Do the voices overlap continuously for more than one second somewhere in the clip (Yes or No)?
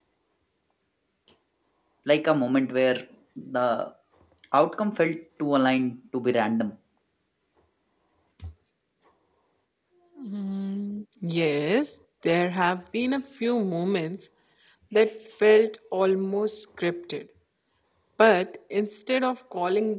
No